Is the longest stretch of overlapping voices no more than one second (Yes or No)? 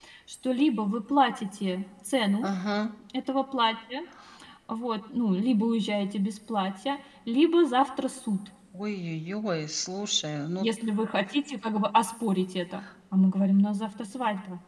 Yes